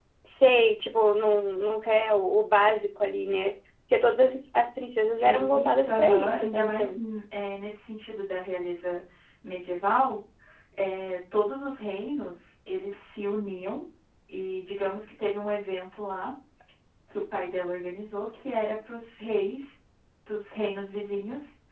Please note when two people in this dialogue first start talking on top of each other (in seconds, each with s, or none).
5.2 s